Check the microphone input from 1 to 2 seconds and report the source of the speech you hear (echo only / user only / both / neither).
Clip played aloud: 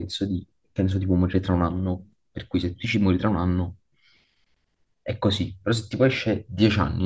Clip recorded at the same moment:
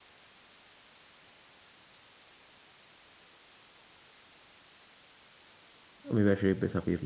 neither